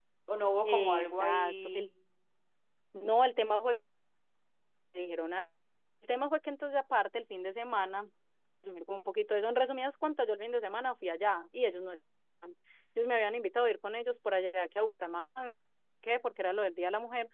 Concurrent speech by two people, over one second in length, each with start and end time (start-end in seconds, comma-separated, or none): 0.7-1.9